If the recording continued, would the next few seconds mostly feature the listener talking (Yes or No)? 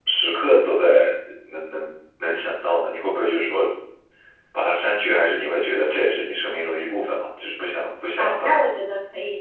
Yes